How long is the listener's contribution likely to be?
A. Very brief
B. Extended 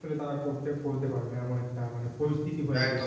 B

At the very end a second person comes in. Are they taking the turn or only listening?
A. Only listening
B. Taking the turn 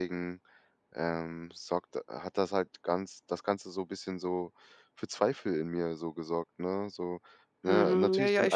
B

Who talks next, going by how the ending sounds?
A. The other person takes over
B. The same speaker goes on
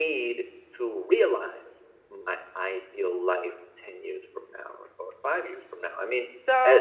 A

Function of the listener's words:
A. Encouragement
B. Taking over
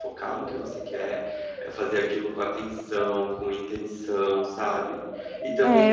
B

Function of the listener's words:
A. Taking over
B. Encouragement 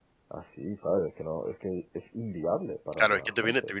A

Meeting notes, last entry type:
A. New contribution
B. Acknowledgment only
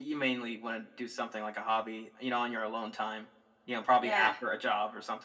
B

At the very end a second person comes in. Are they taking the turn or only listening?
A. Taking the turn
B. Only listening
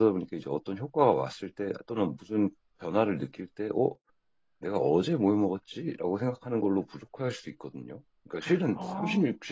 B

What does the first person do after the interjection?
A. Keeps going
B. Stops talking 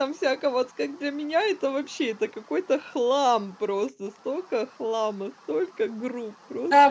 B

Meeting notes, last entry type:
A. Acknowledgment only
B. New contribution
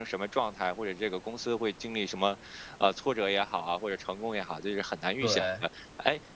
A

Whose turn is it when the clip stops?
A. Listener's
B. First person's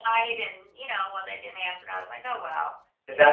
A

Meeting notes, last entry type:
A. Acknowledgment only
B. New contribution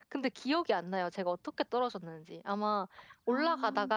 A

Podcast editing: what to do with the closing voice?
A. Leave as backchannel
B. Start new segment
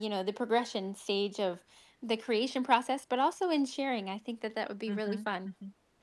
B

